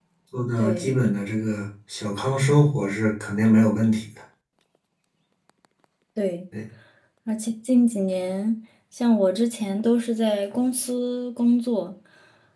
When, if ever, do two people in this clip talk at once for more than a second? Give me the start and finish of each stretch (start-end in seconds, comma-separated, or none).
none